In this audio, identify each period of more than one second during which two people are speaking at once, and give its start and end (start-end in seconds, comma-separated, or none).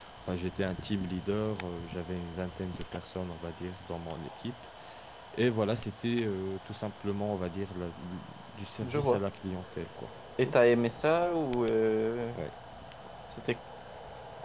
none